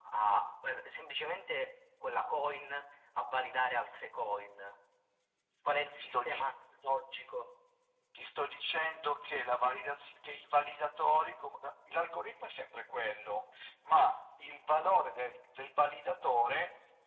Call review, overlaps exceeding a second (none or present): none